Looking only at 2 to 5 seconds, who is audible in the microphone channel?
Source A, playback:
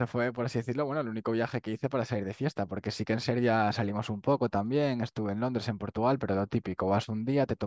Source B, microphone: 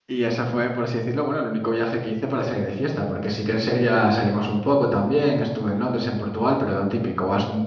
echo only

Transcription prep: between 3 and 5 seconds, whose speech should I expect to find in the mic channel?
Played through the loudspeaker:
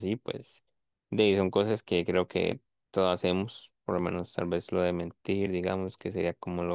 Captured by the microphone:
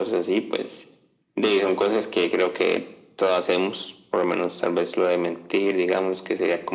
echo only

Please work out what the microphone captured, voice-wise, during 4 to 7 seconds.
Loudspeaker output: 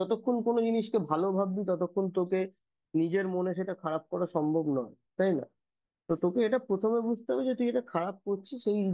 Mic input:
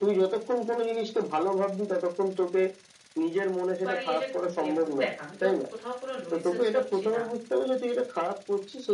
both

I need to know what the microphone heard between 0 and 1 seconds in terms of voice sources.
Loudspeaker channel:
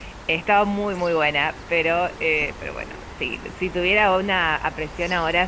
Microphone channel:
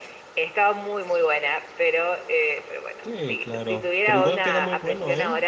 echo only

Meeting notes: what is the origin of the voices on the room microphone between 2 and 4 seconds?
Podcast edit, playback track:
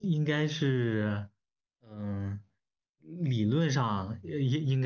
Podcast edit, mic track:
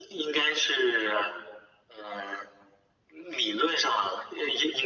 echo only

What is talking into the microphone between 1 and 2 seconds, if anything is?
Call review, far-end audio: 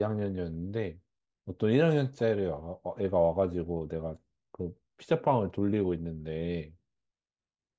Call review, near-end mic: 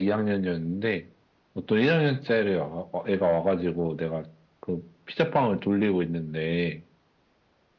echo only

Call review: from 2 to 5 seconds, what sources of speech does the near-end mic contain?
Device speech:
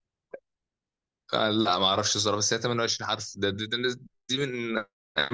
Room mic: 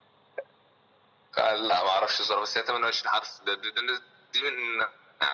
echo only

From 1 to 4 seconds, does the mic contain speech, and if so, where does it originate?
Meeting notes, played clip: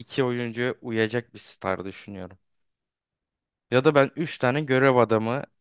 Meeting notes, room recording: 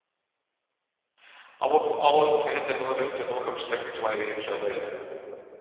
user only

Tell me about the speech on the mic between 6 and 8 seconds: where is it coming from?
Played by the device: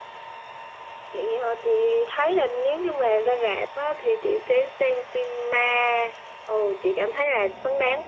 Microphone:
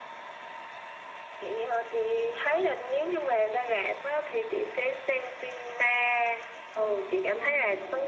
both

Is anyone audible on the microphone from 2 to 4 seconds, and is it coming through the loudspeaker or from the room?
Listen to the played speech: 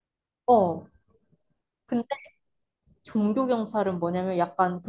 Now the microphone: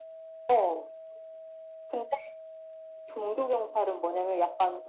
echo only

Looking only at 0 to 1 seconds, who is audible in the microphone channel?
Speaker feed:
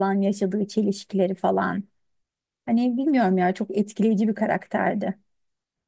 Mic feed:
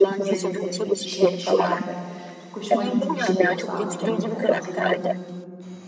both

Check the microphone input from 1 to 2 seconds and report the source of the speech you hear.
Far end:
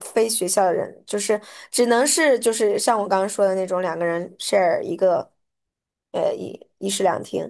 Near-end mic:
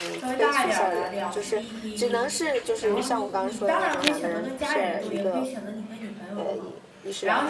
both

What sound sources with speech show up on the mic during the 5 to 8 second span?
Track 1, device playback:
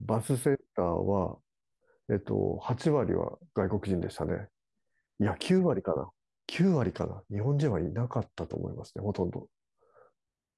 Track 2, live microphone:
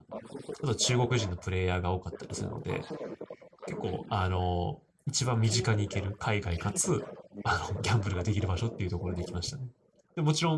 both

